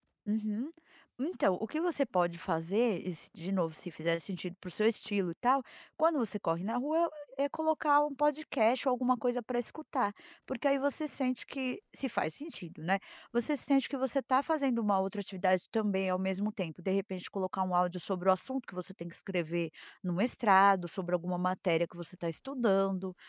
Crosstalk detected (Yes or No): No